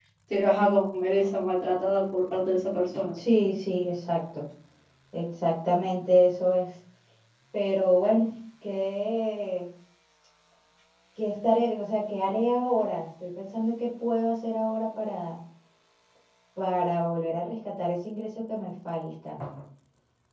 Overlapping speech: No

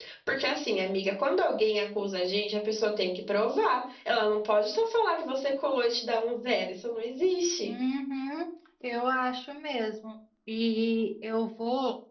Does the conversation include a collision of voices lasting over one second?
No

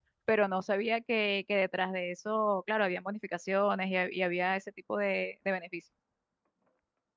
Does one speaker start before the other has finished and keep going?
No

